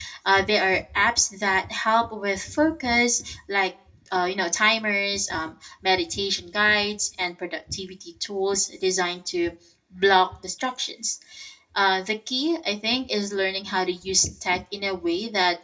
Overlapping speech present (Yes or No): No